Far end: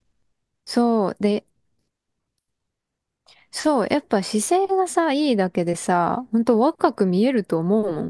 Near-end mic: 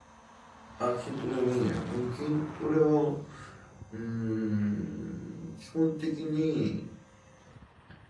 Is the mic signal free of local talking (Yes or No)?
No